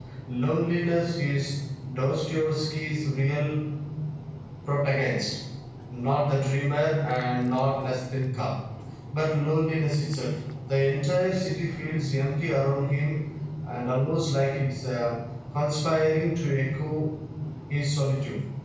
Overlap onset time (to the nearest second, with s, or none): none